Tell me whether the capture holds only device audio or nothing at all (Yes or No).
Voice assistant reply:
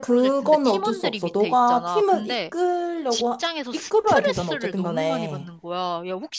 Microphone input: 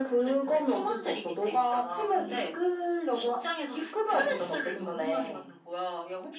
Yes